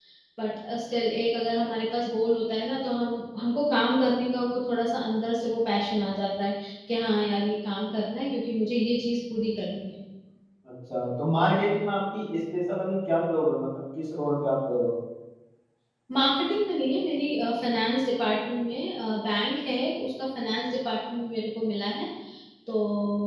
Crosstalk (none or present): none